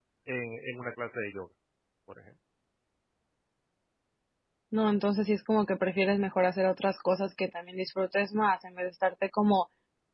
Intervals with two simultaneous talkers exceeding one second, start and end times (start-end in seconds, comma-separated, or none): none